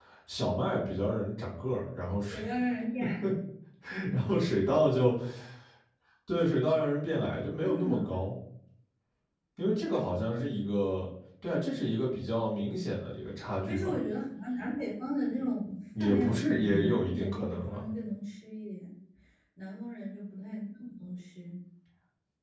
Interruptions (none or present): present